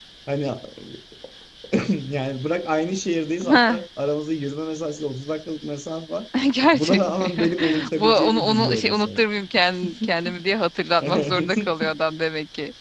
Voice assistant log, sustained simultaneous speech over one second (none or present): present